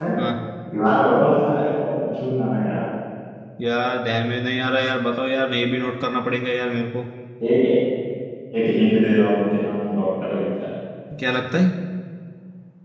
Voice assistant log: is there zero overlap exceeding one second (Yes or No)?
Yes